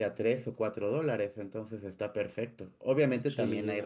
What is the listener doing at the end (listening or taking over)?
listening